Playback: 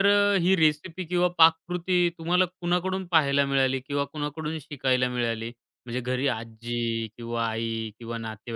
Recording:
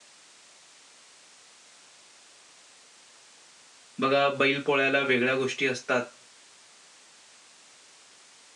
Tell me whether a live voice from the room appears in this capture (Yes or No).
Yes